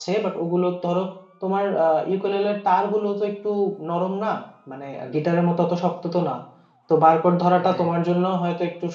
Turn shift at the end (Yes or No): No